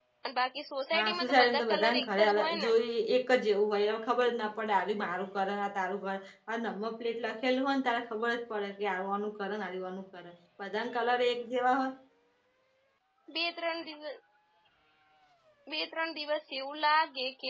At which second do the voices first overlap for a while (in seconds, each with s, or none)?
1.0 s